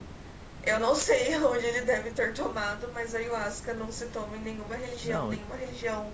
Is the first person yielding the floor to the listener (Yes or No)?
No